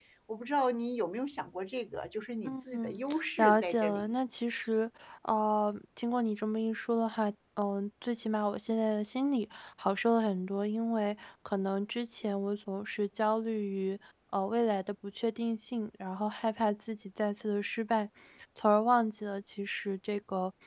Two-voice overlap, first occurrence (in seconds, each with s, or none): 2.4 s